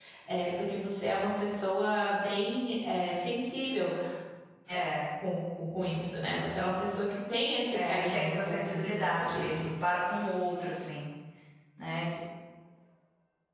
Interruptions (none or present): present